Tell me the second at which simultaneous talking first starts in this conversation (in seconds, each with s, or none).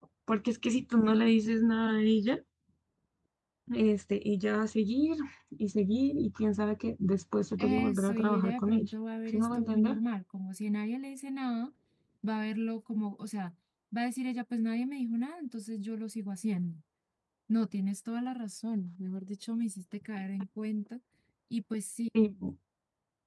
7.6 s